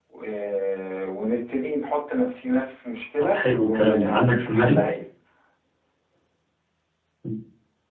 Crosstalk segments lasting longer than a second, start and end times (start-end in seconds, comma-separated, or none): 3.3-4.8